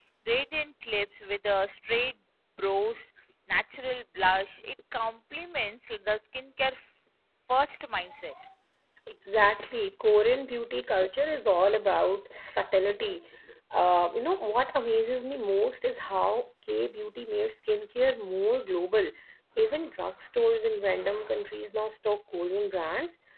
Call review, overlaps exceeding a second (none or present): none